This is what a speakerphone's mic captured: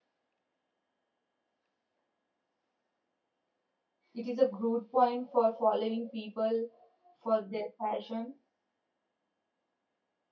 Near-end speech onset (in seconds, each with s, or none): 4.1 s